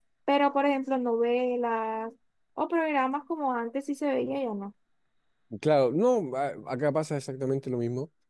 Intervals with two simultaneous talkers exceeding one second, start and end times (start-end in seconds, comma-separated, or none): none